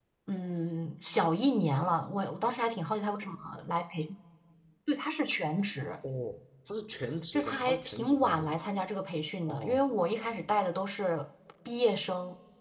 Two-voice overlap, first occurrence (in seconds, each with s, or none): 7.3 s